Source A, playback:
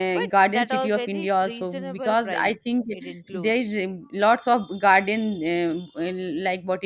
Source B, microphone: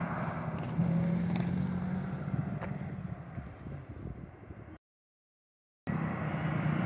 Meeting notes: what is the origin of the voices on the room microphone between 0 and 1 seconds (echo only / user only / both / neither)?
neither